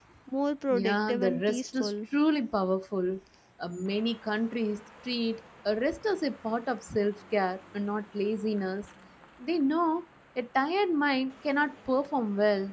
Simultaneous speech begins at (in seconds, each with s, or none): 0.7 s